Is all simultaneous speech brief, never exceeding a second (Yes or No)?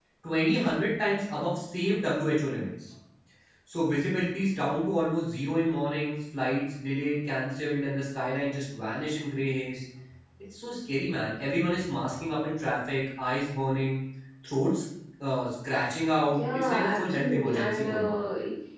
No